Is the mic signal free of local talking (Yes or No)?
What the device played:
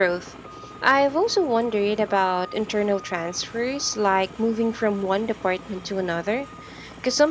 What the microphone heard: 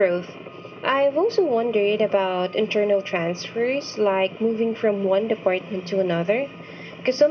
Yes